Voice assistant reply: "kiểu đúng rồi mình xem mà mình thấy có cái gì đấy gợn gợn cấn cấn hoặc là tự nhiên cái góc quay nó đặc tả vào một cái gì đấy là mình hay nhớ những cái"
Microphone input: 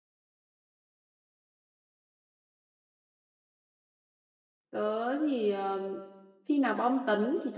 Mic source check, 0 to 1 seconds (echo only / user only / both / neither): neither